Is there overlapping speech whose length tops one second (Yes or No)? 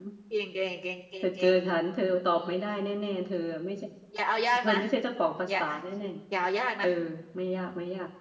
No